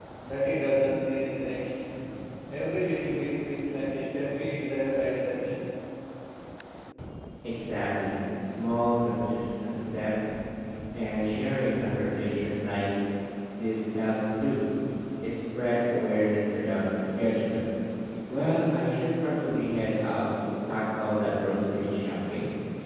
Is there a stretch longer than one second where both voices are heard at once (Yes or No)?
No